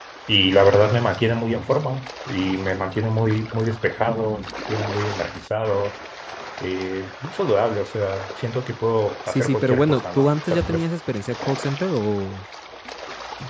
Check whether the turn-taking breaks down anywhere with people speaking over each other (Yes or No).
Yes